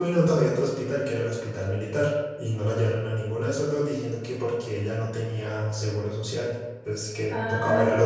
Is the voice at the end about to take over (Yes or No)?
Yes